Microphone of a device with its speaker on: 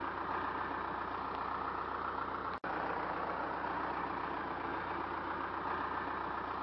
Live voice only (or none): none